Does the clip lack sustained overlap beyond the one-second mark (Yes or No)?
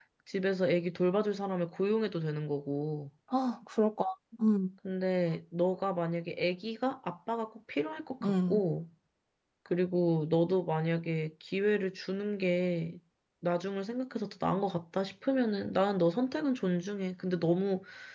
Yes